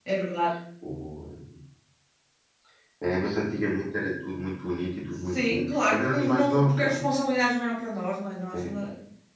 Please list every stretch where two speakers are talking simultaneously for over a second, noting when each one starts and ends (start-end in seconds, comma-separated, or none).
5.3-7.0